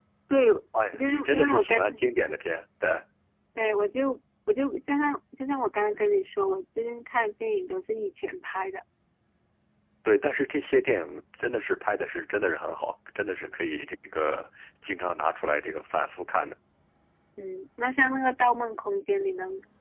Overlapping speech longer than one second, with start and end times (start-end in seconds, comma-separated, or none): 1.0-2.4